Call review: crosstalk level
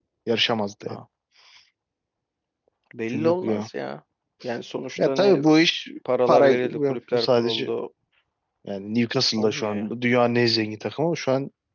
present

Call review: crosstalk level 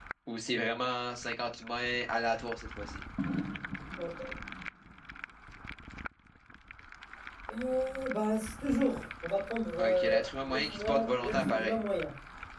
present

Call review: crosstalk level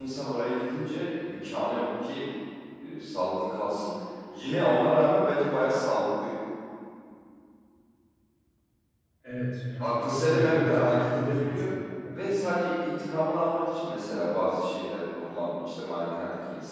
present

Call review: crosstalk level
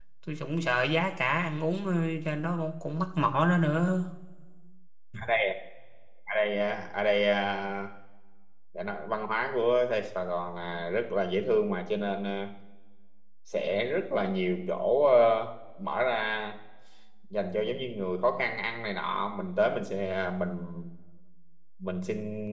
none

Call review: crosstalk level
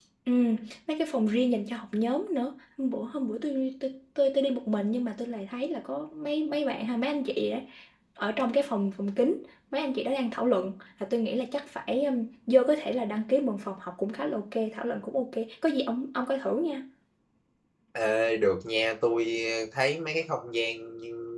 none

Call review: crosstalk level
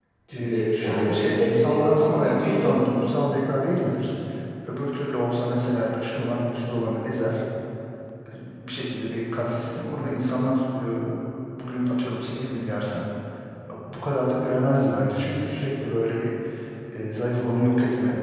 present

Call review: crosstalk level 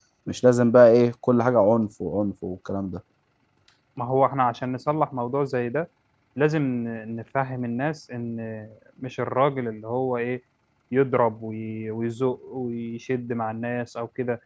none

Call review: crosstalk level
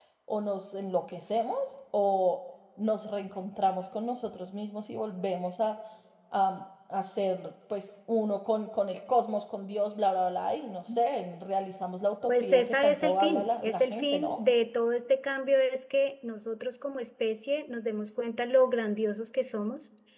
present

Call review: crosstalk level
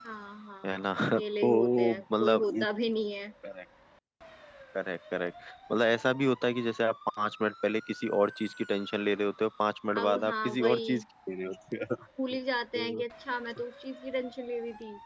present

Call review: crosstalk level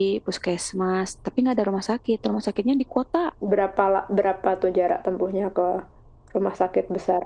none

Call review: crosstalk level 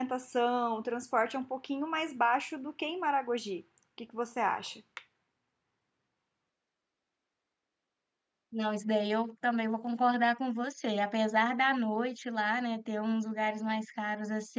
none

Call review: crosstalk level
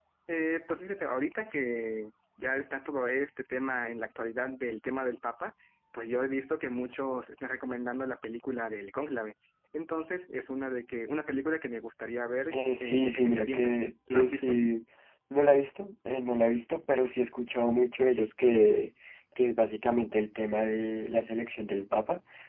present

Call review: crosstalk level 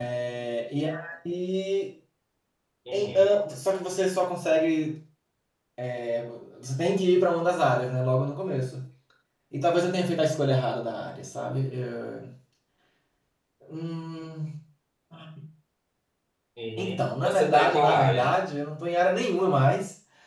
present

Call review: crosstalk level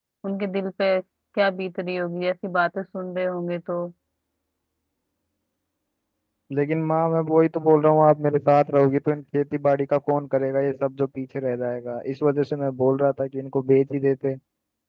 none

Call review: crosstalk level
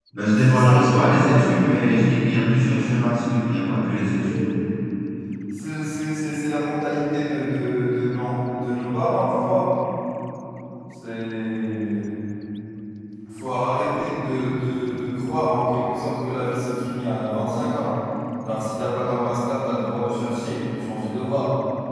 present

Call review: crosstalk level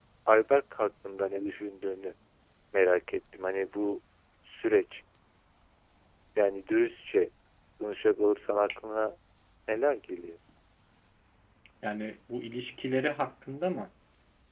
none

